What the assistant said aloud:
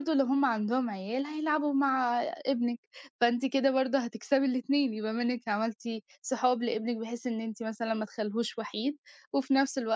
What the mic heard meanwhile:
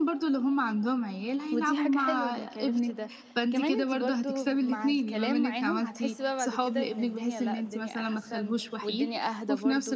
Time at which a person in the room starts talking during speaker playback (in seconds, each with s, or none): 1.5 s